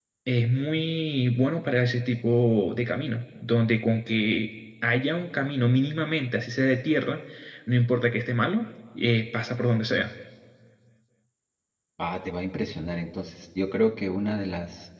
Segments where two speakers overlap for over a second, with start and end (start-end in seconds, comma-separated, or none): none